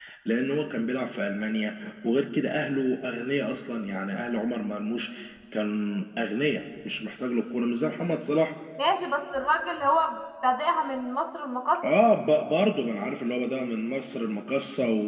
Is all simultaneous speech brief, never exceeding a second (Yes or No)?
Yes